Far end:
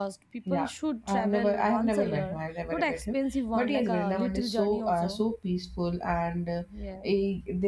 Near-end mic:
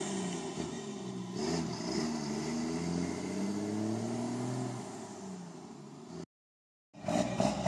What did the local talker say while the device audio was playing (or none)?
none